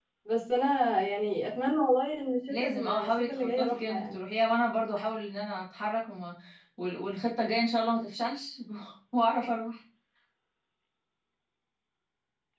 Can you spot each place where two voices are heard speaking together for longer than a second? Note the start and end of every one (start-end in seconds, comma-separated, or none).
2.5-4.2